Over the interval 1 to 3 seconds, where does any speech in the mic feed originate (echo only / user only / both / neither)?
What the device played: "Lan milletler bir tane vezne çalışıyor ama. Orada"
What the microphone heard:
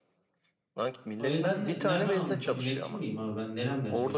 both